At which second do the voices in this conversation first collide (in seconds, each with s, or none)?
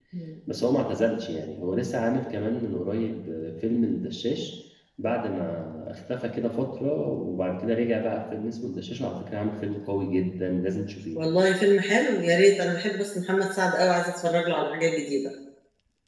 none